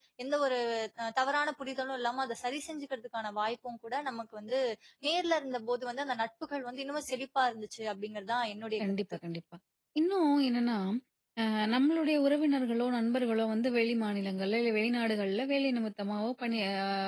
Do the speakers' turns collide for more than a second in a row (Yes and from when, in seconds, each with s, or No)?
No